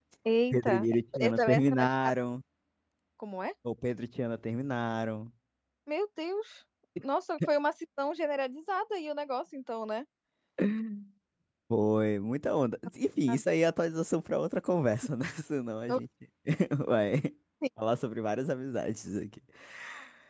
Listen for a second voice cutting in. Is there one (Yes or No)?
Yes